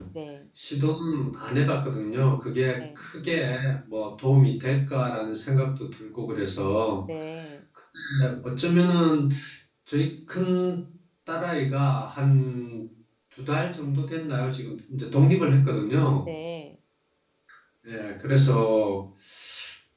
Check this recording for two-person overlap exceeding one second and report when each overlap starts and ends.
none

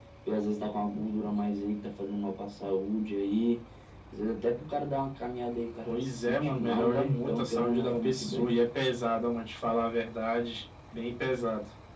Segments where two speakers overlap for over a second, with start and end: 5.8-8.5

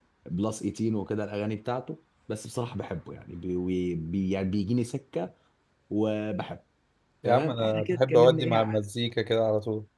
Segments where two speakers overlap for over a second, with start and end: 7.2-8.6

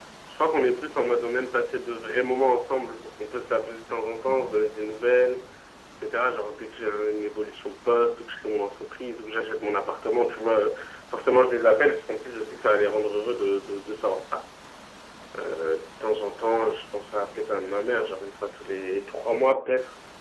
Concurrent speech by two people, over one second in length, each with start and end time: none

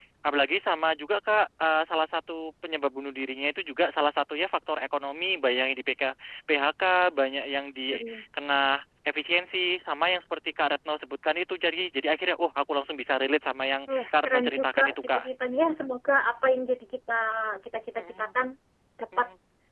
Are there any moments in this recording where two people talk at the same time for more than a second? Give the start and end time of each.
13.9-15.2

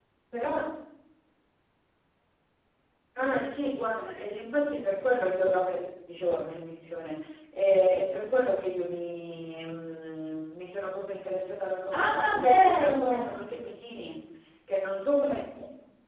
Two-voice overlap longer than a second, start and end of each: 11.9-13.3

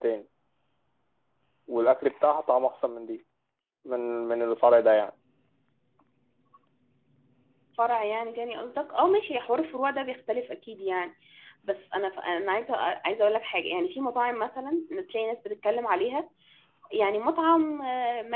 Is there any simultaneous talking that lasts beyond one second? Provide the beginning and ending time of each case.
none

